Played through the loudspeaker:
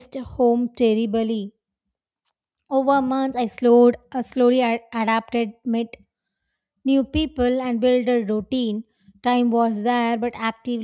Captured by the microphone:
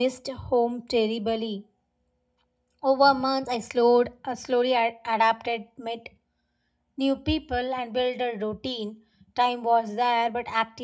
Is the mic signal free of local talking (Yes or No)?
Yes